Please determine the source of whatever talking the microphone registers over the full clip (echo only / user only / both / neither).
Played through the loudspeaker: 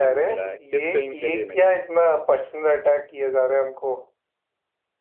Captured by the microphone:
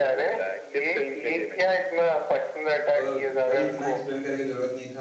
both